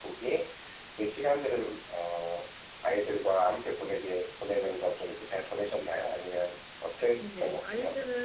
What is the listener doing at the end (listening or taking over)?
taking over